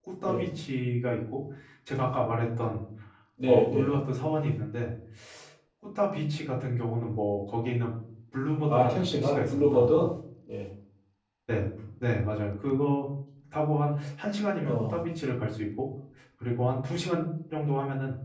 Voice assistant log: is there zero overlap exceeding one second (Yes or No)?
No